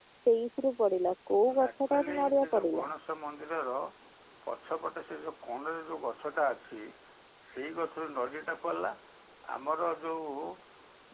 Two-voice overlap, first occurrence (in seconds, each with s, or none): 1.5 s